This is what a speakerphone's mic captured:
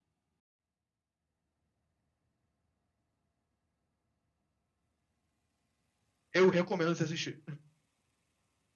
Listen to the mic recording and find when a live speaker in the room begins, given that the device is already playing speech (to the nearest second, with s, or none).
6 s